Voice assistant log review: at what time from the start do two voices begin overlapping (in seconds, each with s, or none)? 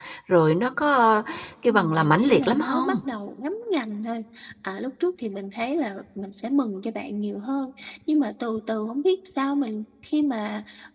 1.7 s